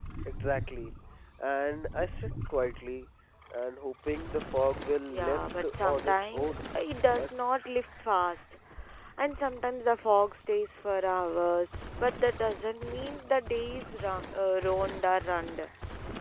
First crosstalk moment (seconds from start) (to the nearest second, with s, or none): 5 s